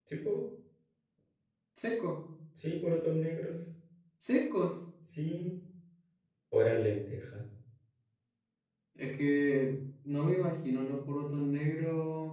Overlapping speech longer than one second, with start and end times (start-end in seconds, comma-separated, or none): none